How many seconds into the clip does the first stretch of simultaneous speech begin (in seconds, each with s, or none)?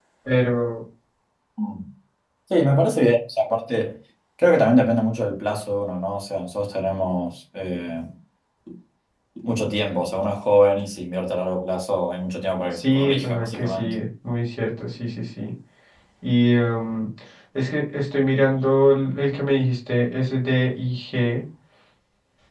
12.7 s